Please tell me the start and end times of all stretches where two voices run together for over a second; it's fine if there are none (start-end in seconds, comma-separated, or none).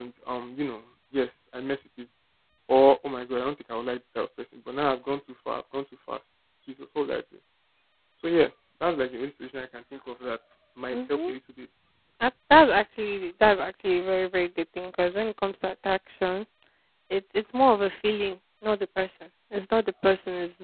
none